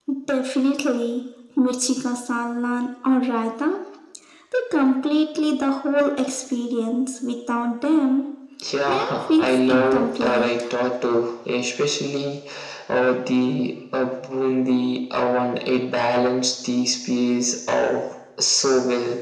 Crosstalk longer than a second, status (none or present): present